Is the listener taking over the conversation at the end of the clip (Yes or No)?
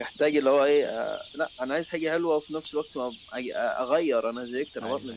Yes